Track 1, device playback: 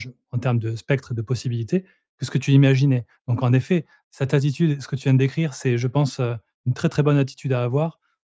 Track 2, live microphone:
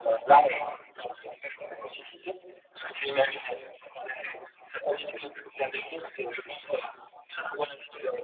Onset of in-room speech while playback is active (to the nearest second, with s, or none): none